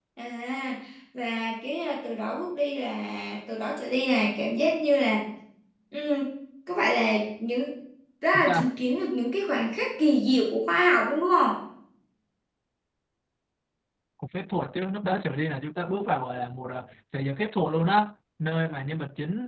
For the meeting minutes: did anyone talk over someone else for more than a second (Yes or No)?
No